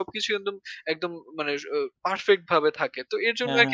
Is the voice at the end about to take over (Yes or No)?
No